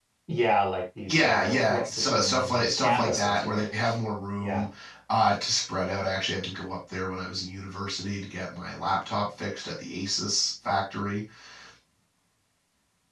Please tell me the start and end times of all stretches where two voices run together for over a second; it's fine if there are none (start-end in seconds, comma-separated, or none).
1.1-3.7